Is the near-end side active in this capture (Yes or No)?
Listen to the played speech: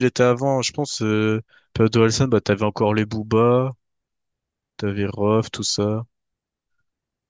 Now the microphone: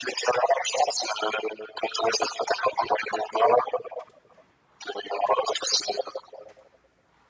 No